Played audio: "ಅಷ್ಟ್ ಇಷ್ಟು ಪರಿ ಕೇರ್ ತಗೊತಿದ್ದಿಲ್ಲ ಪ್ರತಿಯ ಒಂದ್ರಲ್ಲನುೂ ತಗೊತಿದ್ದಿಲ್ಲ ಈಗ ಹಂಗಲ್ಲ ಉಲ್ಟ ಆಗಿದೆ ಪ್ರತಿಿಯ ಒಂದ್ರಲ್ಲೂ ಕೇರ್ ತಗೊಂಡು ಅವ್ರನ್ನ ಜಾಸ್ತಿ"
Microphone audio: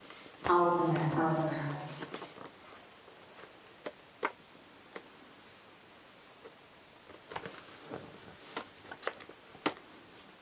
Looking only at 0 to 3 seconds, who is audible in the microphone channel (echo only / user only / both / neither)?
user only